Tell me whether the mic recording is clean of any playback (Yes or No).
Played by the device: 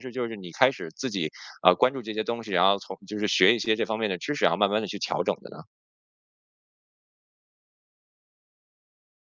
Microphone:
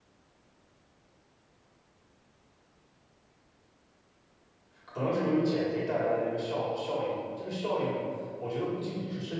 Yes